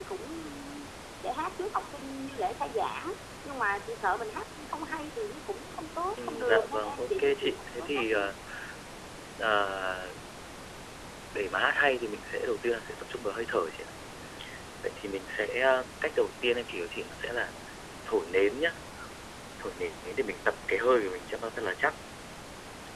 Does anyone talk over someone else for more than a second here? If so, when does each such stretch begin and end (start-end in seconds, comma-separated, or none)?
6.2-8.3